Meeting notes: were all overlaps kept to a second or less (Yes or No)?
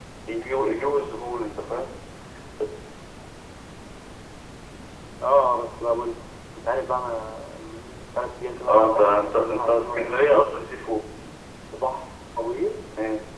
No